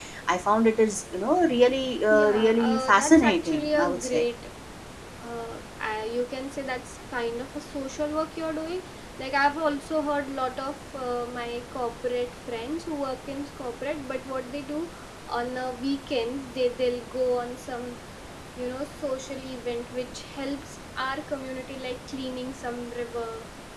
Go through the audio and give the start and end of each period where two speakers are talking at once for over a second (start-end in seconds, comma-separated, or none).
2.1-4.2